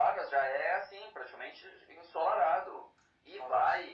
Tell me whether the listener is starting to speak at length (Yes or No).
No